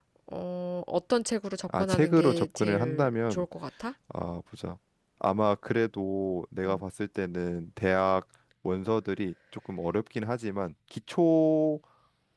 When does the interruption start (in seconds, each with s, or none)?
1.7 s